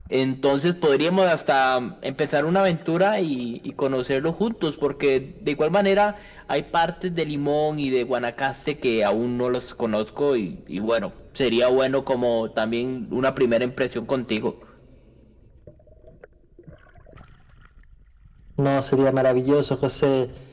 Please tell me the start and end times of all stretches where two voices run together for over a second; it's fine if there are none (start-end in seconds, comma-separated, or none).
none